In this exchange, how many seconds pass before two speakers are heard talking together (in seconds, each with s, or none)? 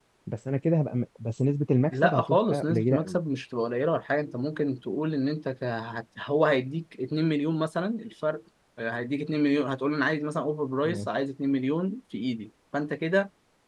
1.9 s